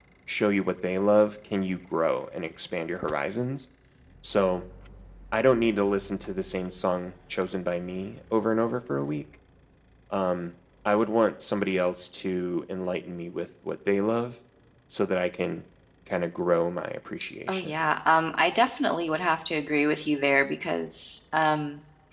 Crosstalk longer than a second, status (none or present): none